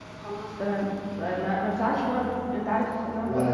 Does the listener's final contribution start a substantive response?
No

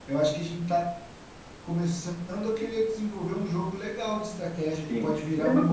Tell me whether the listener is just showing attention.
No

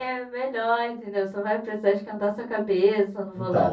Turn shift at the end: Yes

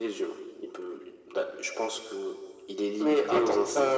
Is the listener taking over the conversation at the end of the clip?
Yes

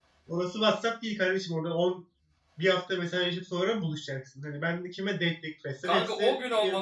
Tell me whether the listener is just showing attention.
No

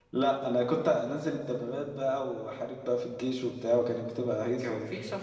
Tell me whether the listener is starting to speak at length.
Yes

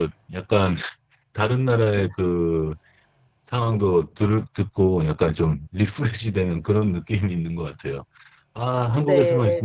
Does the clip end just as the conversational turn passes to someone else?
No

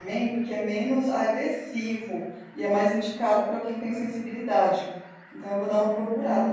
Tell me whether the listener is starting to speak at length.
Yes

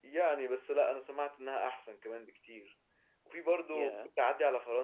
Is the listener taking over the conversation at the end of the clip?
No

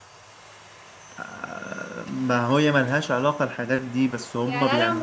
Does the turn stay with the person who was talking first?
No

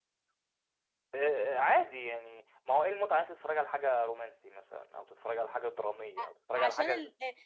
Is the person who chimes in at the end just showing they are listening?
No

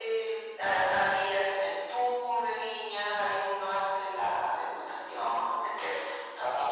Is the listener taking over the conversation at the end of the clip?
Yes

